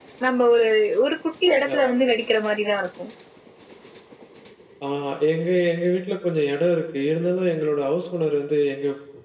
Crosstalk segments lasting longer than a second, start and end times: none

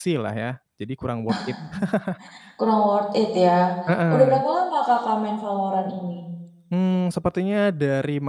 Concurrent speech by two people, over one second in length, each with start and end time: none

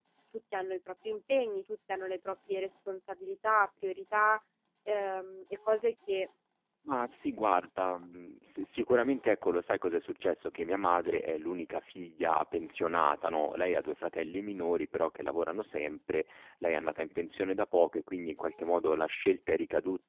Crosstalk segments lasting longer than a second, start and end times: none

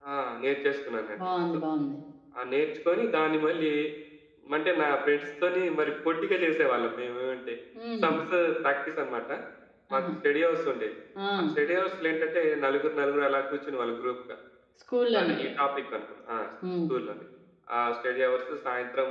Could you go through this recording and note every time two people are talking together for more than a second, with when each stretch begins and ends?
none

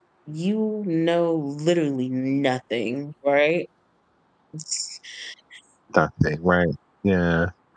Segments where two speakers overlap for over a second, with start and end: none

